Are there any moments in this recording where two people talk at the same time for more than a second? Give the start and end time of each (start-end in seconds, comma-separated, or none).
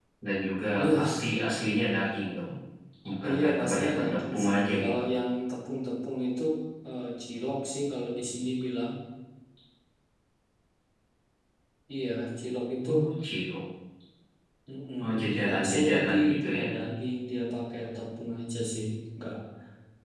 3.2-5.0, 15.4-16.7